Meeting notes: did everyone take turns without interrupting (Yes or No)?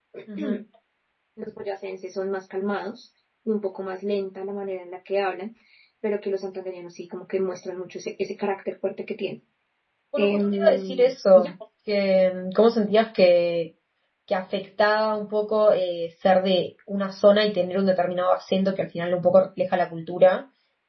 No